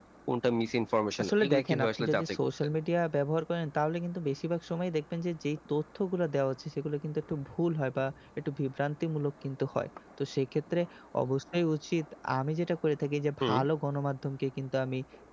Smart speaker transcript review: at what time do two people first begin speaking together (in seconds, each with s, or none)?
1.2 s